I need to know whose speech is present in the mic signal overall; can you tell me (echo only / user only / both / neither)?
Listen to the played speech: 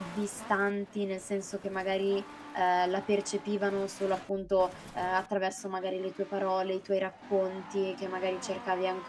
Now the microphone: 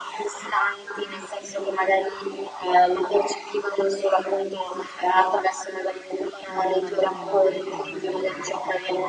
both